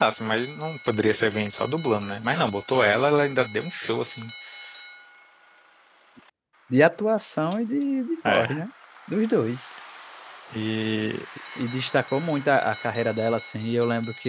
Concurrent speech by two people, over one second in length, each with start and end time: none

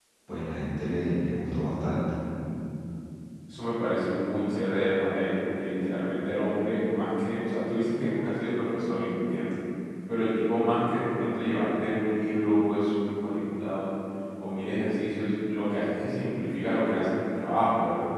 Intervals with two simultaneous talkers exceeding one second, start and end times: none

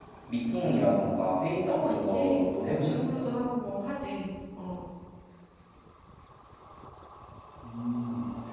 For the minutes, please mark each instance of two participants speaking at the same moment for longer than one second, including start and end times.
1.7-3.1

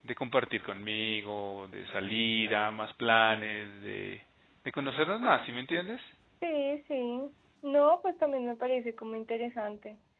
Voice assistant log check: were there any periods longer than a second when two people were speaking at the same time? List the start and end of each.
none

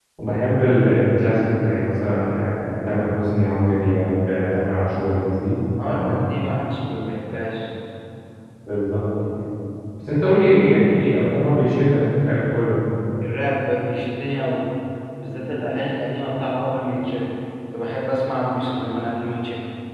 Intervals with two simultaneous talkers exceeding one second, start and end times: none

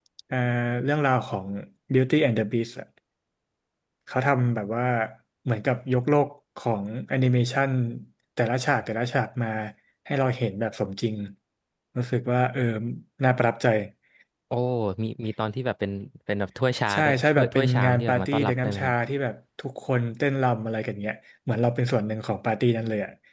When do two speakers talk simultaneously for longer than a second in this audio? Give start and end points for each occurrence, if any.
16.9-18.9

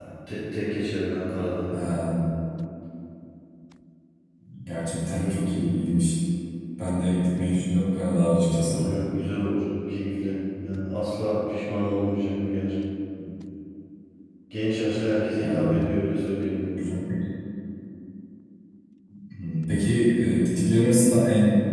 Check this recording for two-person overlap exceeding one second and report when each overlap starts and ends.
none

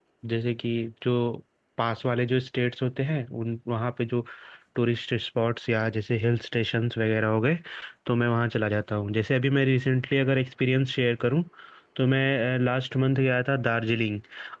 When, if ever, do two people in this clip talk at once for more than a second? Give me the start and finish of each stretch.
none

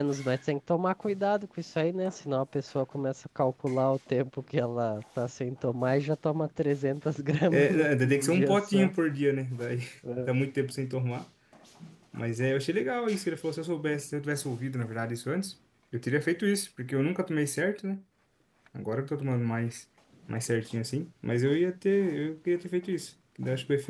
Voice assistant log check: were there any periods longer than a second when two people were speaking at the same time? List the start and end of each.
7.5-8.9

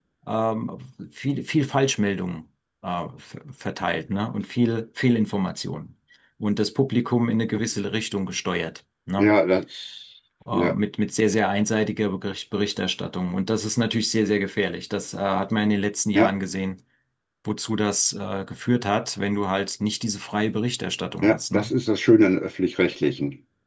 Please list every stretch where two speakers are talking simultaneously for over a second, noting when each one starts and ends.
none

